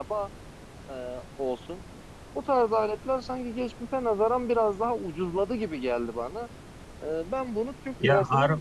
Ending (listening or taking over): listening